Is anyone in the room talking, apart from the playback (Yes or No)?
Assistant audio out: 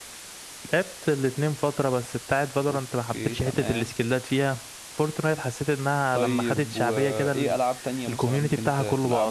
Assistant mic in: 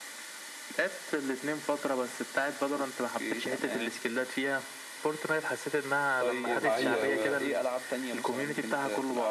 Yes